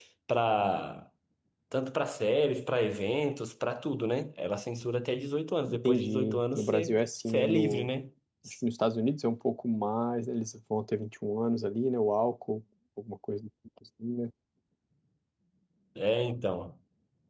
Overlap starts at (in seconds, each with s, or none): 5.7 s